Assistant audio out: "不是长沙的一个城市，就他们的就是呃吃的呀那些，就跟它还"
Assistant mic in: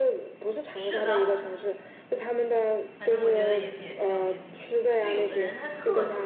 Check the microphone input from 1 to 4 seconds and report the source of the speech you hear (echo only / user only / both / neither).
both